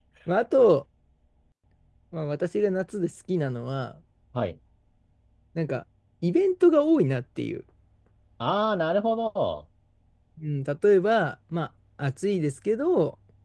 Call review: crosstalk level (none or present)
none